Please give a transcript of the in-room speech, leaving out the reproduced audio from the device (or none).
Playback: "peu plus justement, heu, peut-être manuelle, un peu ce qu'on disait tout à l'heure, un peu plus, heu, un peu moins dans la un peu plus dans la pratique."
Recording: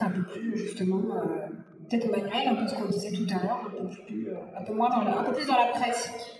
none